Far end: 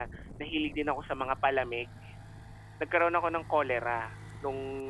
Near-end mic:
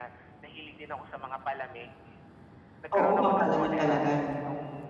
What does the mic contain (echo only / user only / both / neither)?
both